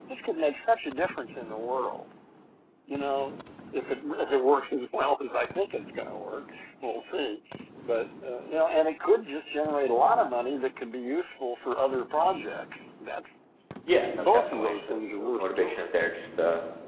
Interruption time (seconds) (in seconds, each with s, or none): 13.9 s